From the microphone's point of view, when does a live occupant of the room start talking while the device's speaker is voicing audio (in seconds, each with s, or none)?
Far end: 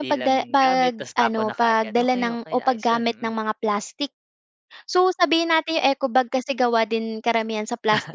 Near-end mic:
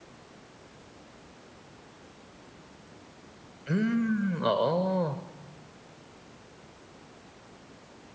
3.7 s